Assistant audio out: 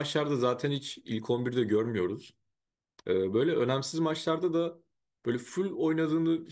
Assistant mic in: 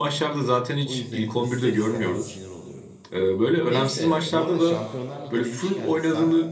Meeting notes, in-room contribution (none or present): present